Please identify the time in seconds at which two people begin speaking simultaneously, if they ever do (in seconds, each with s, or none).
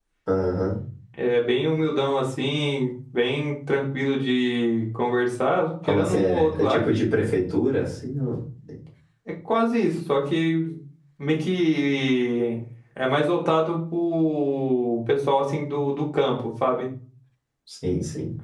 5.8 s